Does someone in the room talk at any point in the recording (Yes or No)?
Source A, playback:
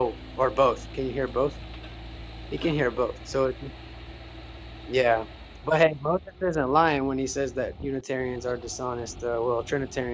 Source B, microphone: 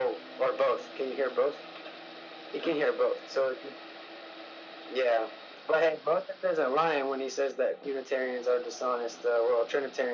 No